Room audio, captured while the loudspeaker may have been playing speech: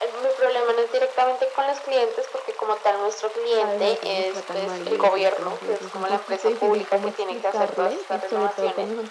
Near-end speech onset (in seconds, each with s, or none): 3.6 s